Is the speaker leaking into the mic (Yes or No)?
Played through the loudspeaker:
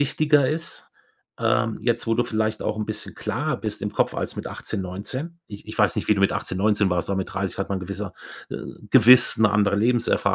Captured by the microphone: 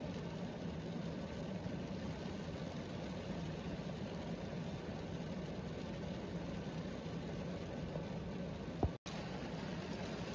No